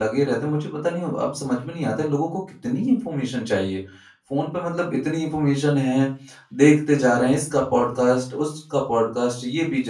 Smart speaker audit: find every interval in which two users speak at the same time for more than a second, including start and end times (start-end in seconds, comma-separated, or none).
none